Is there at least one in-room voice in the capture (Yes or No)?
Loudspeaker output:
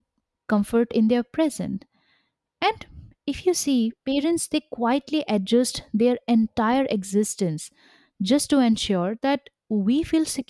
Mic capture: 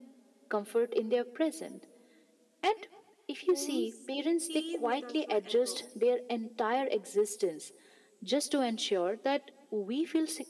Yes